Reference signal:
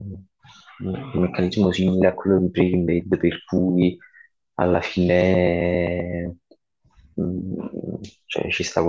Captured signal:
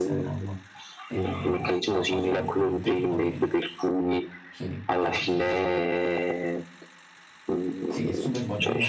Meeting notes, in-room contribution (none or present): present